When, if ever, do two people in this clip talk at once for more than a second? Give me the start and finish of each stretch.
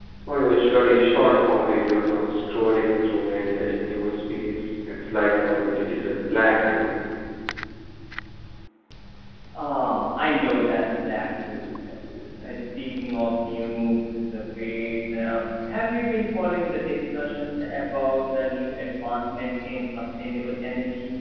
none

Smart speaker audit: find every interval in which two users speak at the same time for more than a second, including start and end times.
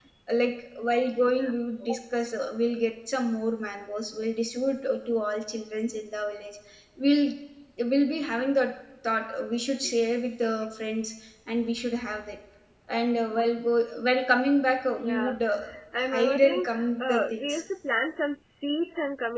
16.1-17.6

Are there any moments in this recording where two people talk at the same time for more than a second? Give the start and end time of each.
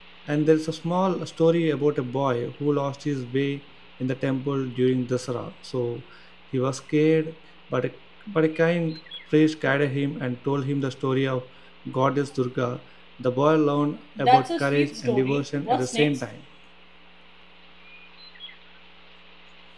14.2-16.2

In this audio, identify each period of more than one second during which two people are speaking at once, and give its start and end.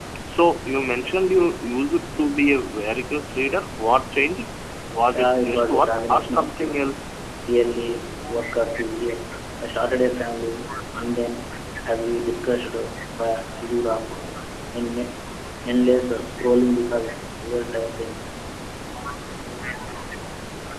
5.1-6.9

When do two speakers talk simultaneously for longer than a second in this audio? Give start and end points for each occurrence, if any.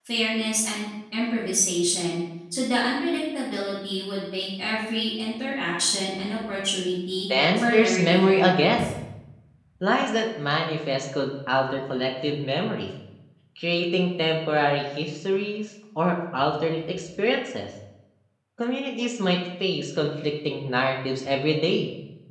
7.6-8.9

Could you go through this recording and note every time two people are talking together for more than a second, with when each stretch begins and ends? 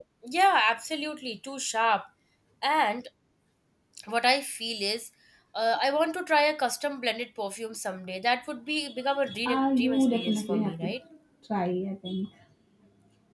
9.4-10.9

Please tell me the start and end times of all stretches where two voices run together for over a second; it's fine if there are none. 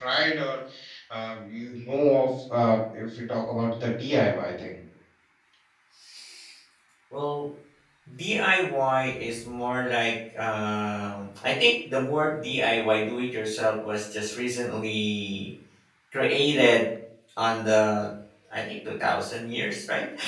none

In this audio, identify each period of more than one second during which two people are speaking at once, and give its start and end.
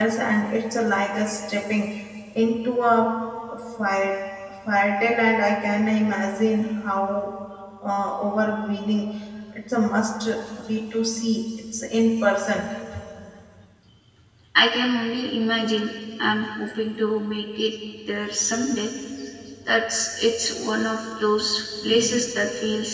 none

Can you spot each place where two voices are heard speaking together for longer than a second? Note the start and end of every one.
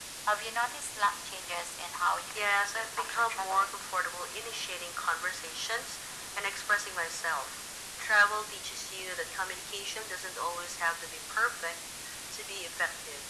2.3-3.8

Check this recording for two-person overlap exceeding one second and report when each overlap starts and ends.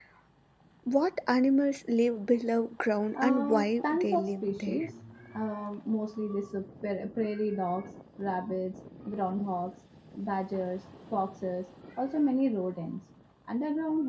3.2-4.8

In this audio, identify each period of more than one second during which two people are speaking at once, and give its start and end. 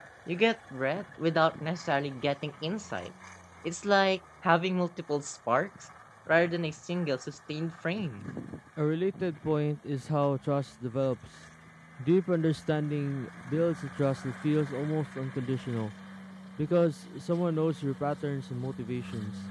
none

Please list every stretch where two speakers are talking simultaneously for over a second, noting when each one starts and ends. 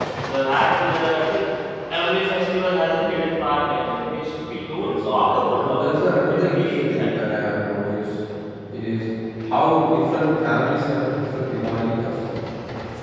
4.8-7.1

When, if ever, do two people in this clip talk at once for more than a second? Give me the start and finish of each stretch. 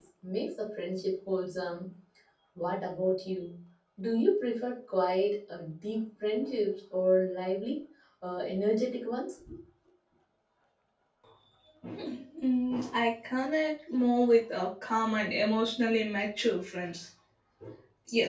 none

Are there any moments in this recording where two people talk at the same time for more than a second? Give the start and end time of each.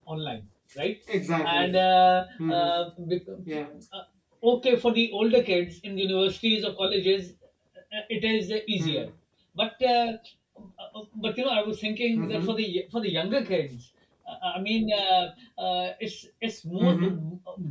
none

